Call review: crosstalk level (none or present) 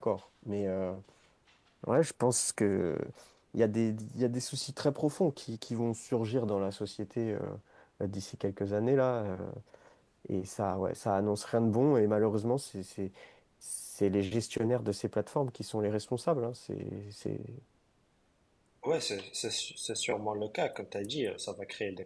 none